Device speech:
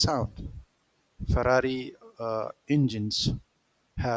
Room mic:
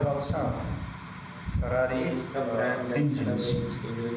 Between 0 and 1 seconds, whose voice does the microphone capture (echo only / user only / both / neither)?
echo only